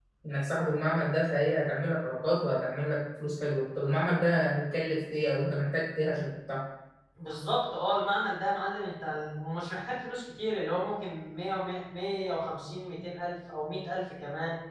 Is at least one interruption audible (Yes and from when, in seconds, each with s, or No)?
No